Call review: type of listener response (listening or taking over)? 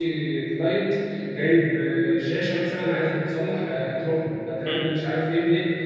listening